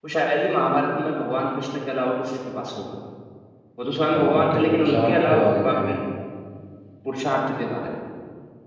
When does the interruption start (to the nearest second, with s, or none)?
4 s